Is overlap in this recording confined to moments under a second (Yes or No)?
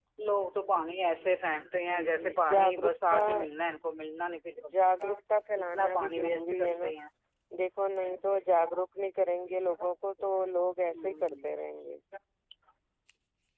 No